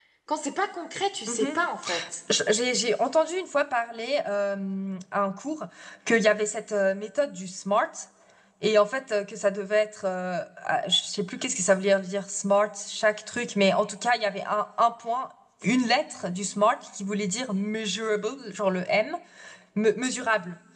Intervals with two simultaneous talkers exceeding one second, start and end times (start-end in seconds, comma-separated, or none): none